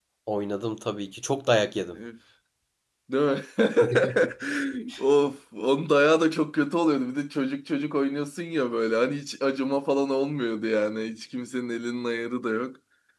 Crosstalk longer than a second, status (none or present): none